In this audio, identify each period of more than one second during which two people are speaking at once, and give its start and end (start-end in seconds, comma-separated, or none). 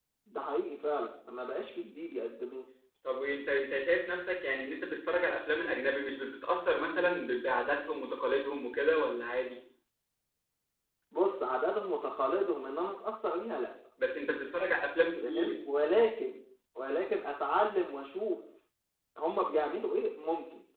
none